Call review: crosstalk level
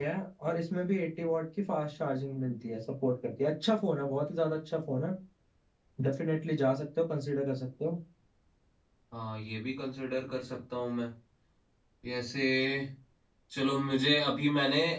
none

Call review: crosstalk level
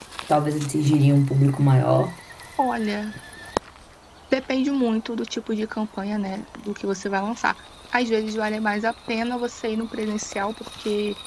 none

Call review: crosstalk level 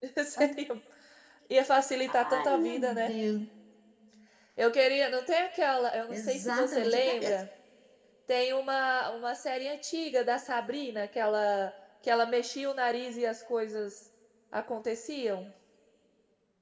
present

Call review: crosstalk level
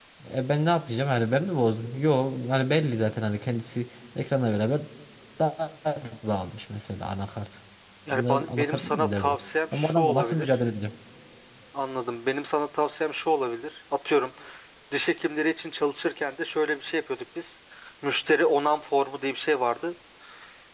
present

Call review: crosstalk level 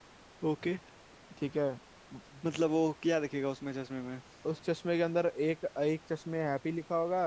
none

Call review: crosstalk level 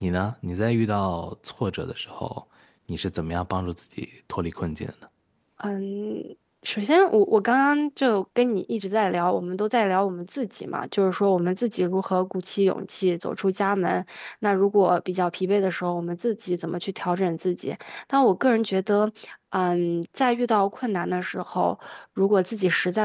none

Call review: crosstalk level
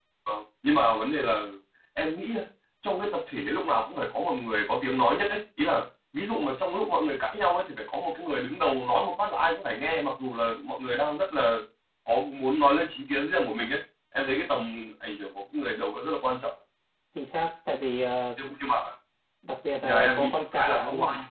present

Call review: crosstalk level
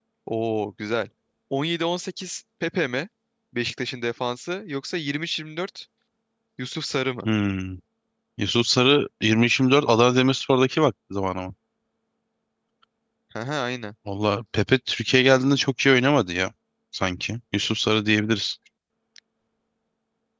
none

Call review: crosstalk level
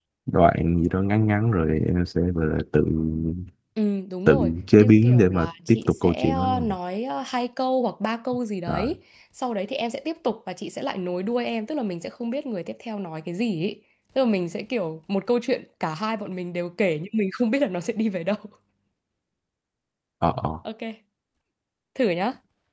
present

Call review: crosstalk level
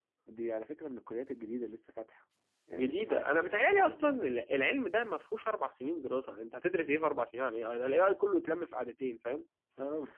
present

